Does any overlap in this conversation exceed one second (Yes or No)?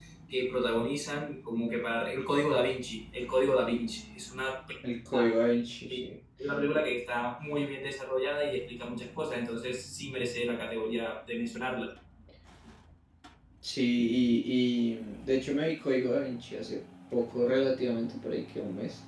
No